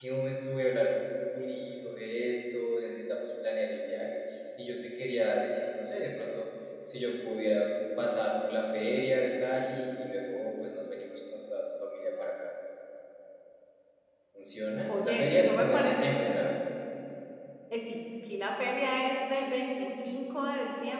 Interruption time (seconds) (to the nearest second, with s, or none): 15 s